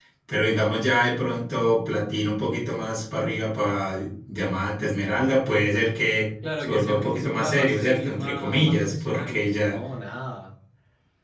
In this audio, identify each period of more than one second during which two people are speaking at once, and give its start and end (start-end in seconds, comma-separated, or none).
6.6-9.8